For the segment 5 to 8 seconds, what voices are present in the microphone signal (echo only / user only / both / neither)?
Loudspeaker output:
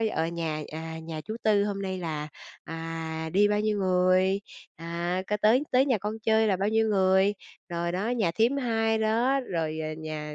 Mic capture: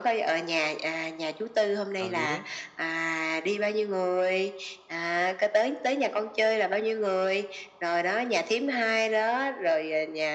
echo only